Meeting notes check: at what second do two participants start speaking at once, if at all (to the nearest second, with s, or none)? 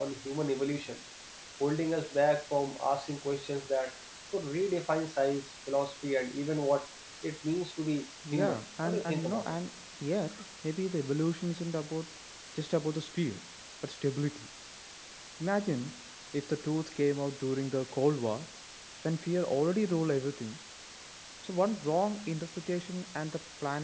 8 s